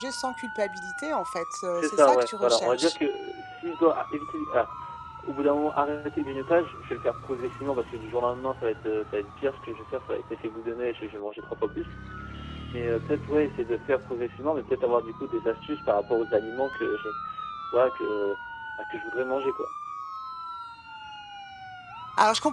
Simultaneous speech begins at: 2 s

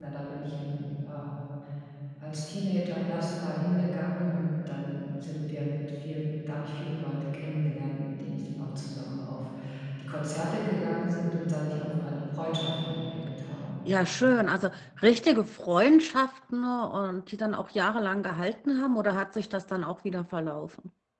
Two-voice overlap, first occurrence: none

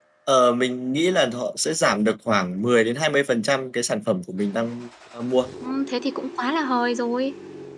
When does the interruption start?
none

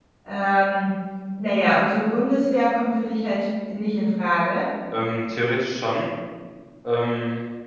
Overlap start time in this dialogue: none

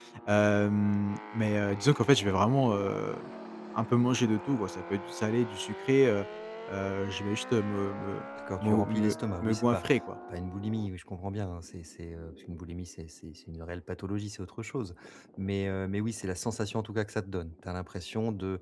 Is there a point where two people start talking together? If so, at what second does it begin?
9 s

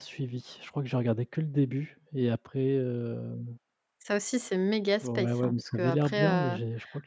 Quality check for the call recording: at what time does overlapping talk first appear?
5 s

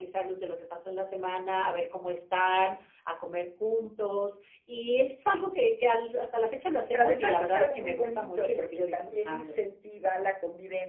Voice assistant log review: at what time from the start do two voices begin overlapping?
7 s

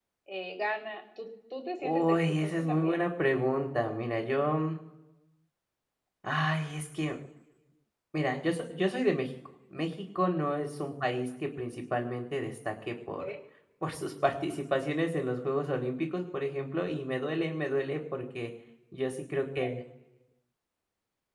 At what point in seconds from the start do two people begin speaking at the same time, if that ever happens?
2 s

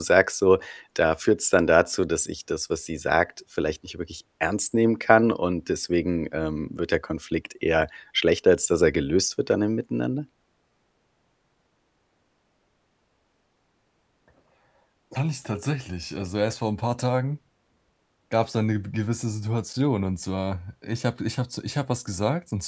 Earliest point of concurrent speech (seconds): none

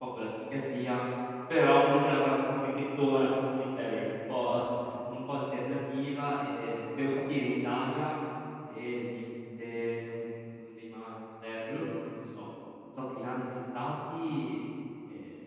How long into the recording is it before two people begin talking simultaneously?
none

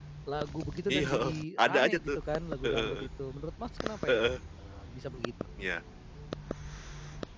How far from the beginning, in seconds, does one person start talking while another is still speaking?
1 s

